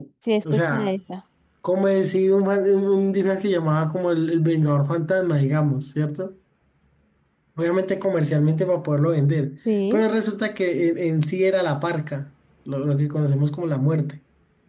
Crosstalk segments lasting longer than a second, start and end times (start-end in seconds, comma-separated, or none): none